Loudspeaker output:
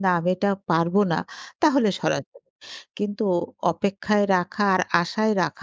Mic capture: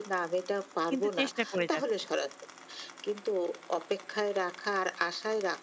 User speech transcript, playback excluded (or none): কিন্তু চেষ্টা করে যাচ্ছেন।